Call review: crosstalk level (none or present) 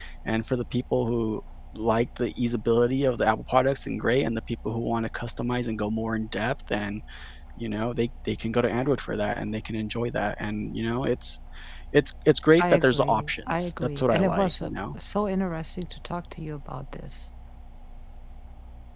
present